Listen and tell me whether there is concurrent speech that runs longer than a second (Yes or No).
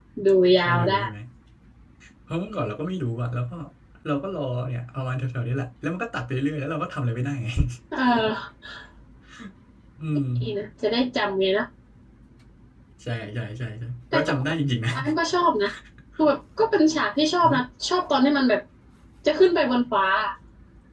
No